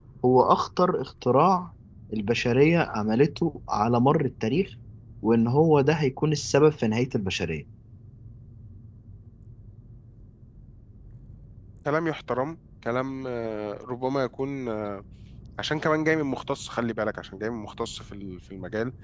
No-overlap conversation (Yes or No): Yes